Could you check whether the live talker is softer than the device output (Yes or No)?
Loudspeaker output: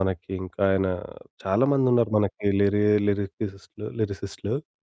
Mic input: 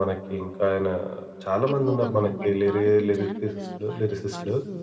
Yes